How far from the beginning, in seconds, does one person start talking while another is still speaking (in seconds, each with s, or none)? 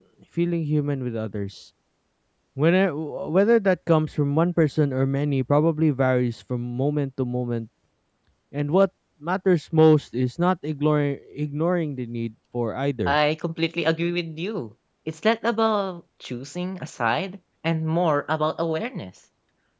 none